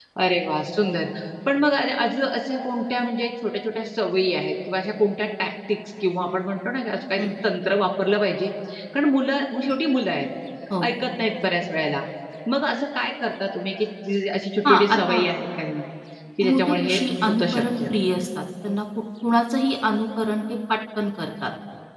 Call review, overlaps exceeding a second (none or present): present